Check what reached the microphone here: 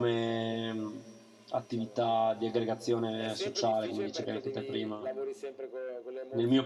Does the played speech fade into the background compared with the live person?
Yes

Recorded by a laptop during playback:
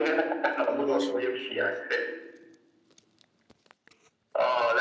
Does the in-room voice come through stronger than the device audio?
No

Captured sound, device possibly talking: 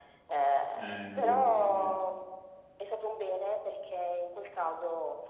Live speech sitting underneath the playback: Yes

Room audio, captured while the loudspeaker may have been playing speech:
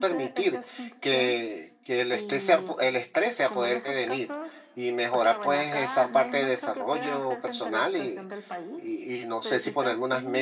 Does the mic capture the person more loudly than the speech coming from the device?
Yes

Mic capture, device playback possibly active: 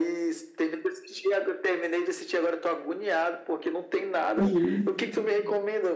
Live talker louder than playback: Yes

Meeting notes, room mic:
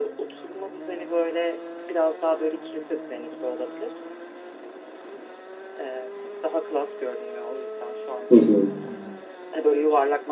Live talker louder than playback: Yes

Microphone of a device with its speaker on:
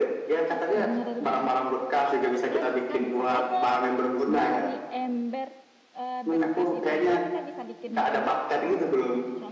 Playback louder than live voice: Yes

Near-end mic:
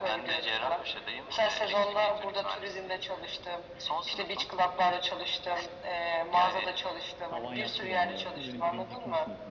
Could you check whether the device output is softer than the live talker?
No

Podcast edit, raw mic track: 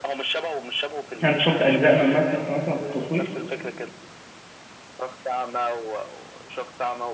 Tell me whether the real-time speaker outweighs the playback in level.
Yes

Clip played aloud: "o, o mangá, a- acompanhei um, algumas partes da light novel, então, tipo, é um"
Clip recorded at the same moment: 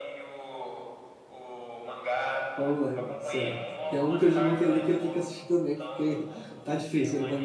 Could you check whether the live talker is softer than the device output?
No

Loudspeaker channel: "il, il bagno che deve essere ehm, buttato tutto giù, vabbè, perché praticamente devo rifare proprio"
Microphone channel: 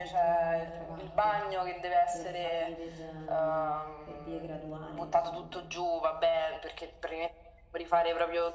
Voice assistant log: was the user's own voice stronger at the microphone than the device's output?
No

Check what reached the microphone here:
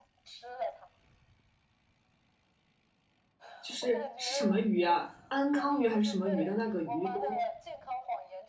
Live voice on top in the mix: Yes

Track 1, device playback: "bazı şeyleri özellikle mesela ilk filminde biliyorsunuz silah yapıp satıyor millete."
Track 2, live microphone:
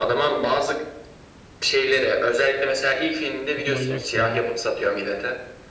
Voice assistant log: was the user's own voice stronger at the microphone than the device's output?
No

